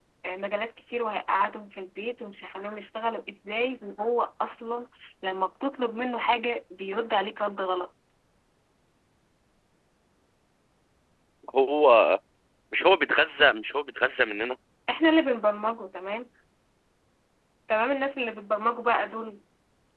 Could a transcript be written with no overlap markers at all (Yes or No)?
Yes